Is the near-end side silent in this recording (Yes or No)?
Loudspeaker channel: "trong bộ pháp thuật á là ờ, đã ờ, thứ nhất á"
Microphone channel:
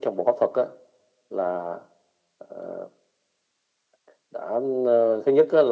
Yes